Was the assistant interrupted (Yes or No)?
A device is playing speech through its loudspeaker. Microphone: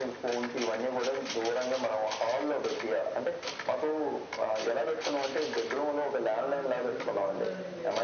Yes